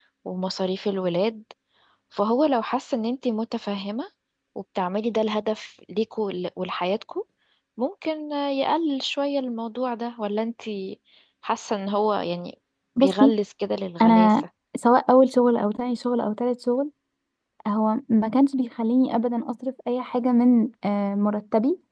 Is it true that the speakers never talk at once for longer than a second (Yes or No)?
Yes